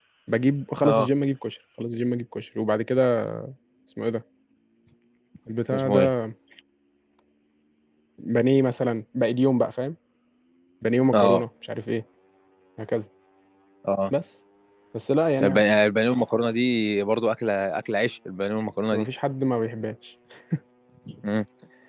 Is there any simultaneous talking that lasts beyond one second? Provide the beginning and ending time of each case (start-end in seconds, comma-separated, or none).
none